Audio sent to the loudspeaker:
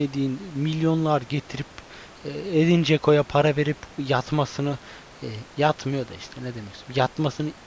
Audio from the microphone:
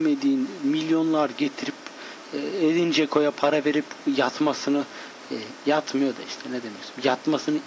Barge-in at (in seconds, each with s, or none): none